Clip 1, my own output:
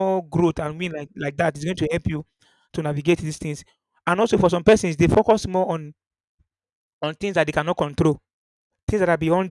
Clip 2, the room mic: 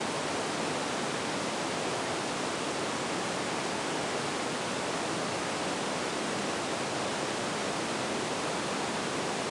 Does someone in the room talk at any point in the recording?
No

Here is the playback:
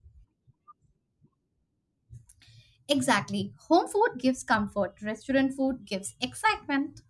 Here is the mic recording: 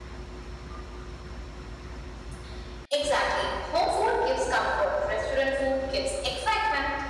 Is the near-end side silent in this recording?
Yes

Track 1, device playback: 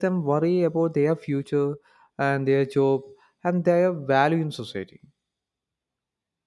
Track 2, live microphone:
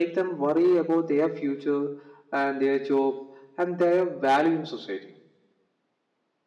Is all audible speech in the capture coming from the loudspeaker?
Yes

